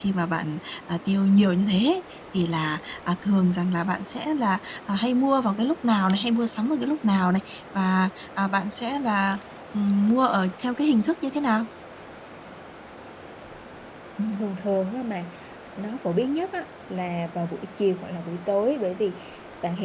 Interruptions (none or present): none